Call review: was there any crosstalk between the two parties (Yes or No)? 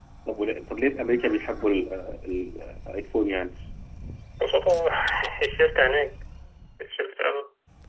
No